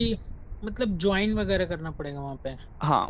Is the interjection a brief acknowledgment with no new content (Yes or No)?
No